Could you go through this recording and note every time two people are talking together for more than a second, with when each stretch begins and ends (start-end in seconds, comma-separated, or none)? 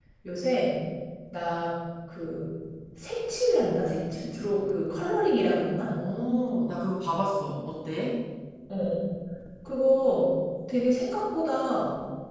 none